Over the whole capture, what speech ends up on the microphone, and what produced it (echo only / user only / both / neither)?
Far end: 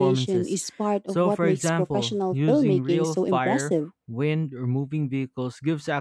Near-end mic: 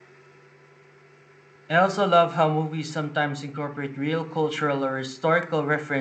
user only